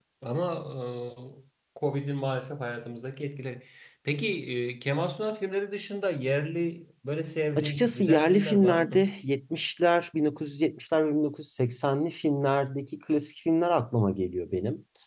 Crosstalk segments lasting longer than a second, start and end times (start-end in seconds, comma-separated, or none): 7.6-9.1